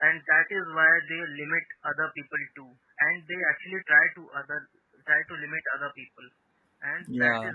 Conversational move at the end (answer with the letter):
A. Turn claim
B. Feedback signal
B